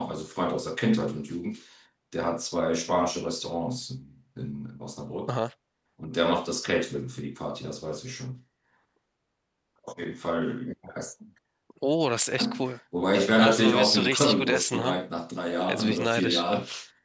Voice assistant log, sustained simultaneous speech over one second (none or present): present